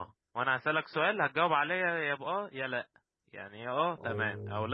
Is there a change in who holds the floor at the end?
No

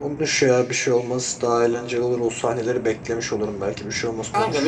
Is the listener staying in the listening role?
No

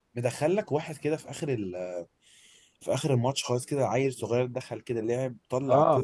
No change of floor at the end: No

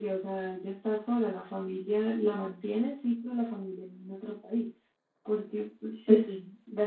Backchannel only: Yes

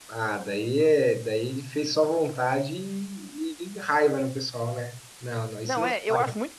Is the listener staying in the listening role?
No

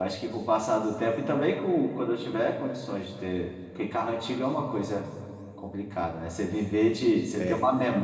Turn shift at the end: No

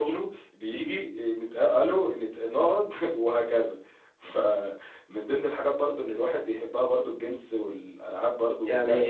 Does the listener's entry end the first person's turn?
Yes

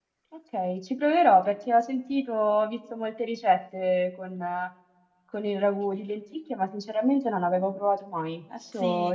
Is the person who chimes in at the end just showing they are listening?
No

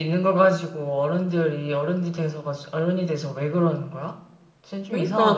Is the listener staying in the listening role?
No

